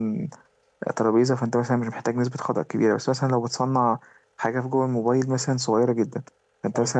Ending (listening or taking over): listening